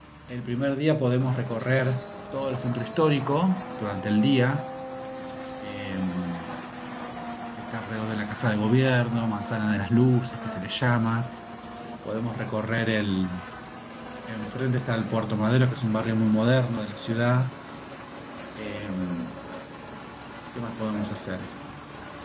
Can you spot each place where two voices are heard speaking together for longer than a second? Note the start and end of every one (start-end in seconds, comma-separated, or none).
none